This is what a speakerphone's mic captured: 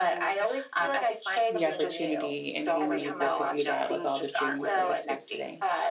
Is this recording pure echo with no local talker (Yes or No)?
No